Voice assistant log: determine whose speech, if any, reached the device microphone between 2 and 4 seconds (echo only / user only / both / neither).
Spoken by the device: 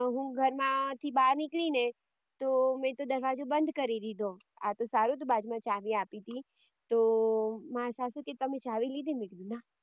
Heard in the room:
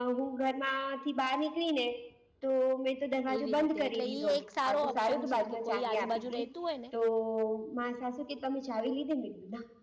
both